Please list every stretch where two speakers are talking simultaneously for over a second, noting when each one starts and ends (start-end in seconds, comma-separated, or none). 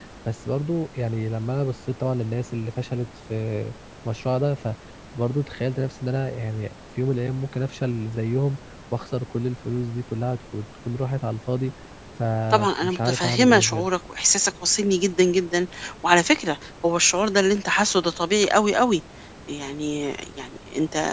12.5-13.9